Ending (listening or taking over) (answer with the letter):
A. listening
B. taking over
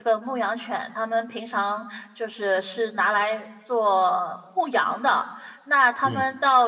A